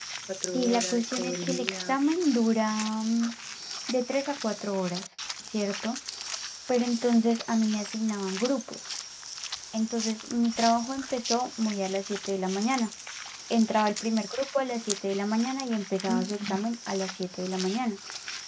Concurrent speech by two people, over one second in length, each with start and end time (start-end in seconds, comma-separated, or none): 0.5-2.0